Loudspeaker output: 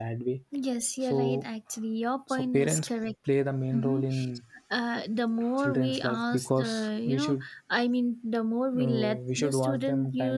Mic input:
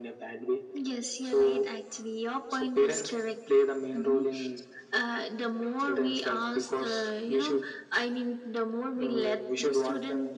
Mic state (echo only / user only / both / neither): echo only